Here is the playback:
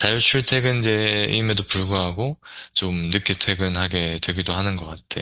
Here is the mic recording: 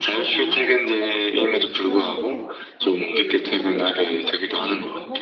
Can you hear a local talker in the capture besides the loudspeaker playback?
Yes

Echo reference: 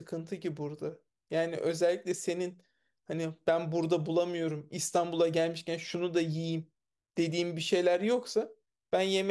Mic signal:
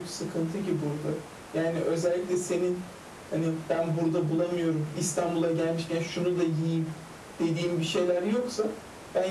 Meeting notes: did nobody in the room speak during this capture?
Yes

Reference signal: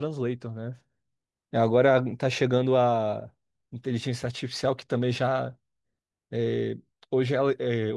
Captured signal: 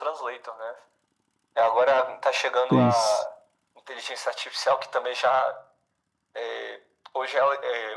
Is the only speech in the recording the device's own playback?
No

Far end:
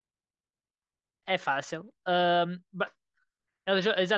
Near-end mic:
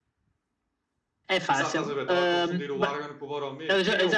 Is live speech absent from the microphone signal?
No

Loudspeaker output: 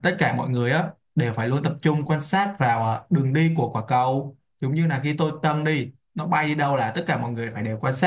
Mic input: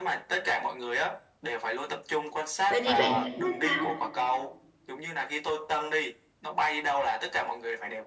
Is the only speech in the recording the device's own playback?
No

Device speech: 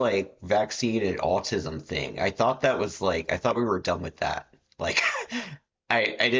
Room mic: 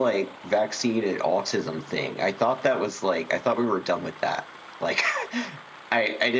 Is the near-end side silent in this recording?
Yes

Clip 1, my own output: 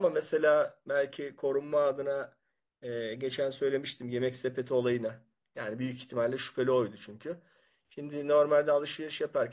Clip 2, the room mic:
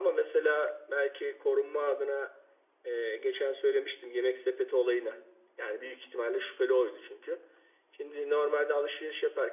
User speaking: No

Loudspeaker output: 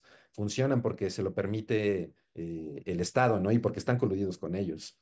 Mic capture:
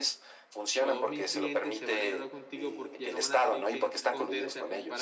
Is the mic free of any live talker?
No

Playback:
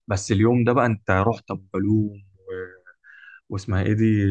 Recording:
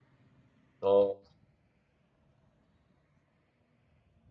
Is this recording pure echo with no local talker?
No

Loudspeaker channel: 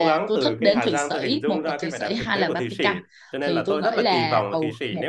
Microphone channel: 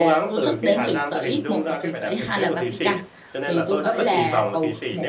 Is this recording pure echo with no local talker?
Yes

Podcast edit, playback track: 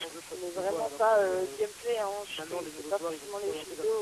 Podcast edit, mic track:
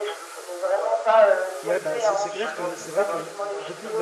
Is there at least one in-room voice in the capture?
Yes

